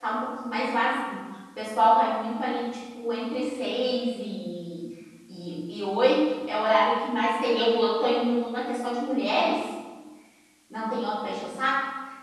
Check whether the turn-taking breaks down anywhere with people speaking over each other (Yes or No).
No